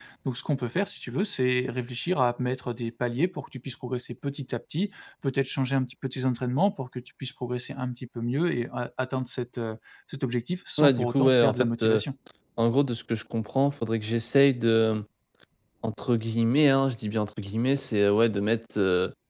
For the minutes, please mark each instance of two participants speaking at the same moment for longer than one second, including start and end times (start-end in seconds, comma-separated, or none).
10.8-12.0